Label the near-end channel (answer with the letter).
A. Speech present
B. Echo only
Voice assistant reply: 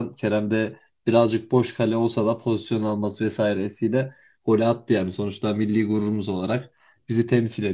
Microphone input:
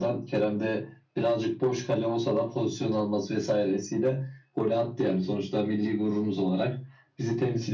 B